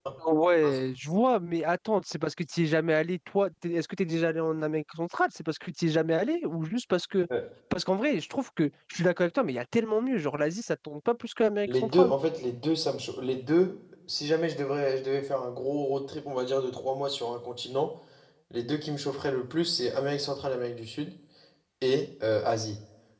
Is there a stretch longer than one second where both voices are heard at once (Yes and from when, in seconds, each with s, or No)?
No